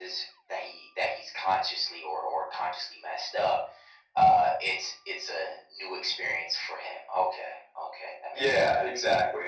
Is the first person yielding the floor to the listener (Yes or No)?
Yes